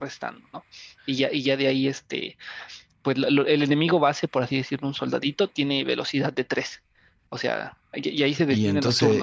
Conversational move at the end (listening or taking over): taking over